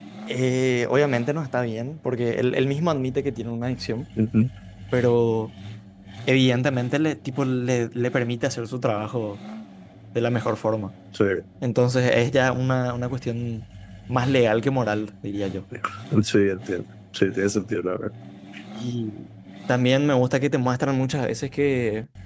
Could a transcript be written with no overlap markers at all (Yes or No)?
Yes